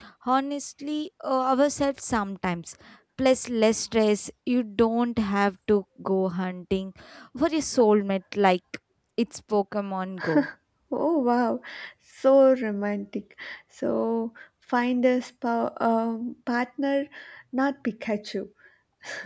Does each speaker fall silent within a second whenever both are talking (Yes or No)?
Yes